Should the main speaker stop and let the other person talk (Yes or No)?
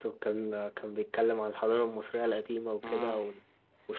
No